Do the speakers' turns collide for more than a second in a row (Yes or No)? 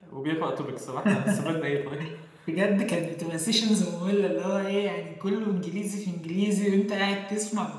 No